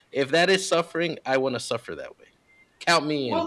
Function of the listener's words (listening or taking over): taking over